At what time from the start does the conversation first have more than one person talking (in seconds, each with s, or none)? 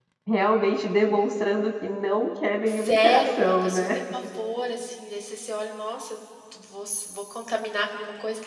2.7 s